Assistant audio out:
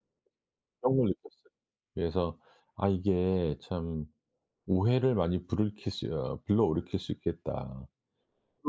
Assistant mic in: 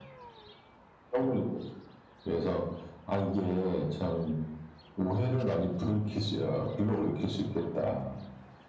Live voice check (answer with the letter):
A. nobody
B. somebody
A